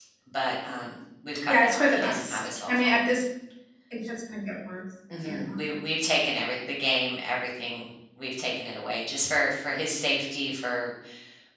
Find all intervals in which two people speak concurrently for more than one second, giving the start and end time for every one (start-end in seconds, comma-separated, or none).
1.5-3.1